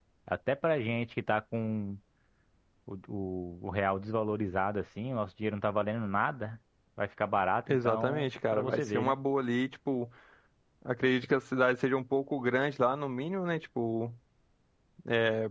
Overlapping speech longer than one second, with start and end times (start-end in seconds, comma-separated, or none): 7.7-9.2